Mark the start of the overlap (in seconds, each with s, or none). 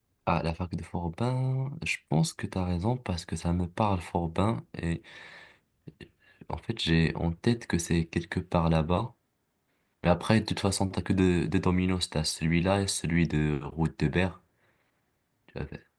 none